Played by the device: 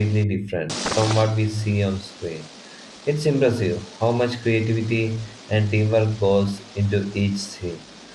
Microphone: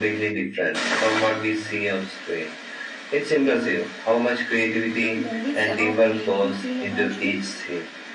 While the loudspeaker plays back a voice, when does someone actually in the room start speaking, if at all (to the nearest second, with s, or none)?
5 s